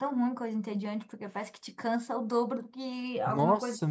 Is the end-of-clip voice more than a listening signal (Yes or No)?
Yes